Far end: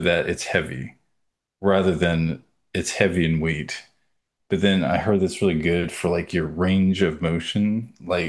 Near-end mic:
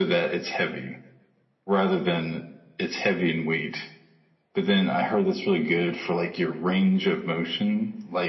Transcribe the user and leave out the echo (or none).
none